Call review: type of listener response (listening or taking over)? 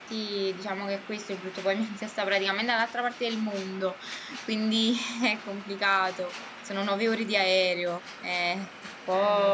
listening